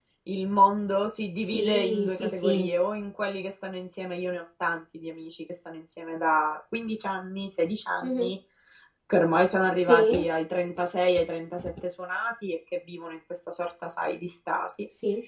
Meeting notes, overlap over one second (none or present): present